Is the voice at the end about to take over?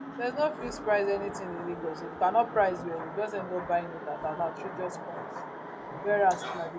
No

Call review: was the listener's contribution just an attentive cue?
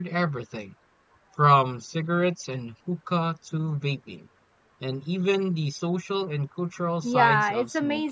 No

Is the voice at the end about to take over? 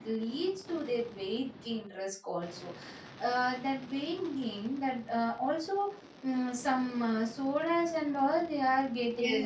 Yes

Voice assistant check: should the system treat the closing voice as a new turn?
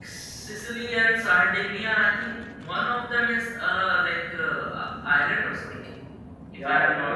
Yes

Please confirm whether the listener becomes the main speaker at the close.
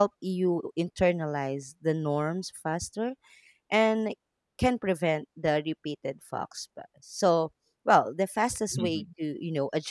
No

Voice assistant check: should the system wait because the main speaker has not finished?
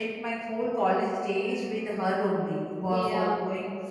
Yes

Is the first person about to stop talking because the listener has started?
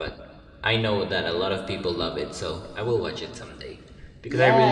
Yes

